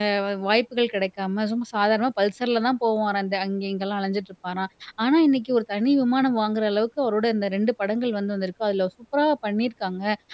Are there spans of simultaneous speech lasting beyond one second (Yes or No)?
No